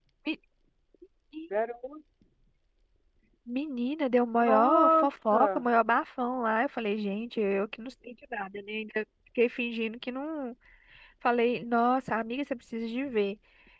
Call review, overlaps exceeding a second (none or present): present